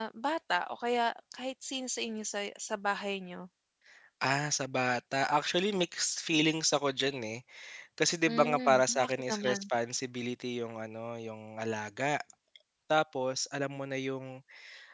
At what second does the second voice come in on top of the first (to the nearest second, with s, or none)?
8 s